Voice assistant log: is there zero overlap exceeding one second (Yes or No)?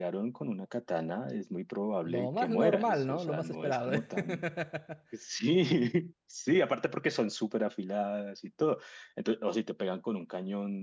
No